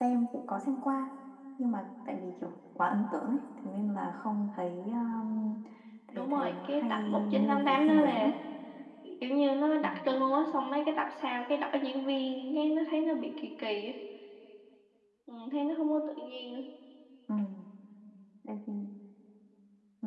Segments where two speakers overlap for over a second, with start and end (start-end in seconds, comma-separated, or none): 6.2-8.3